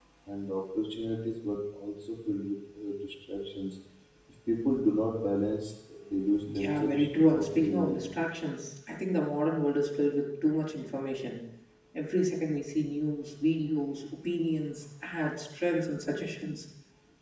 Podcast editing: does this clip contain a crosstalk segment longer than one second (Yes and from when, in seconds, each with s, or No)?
Yes, from 6.4 s